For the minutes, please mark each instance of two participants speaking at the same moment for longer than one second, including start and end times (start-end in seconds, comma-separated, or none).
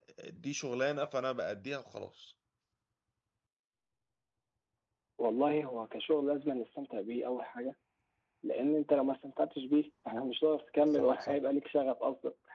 none